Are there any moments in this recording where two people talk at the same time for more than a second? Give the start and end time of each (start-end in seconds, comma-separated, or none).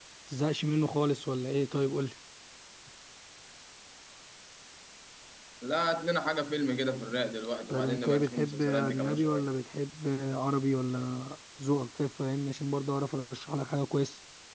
7.7-9.5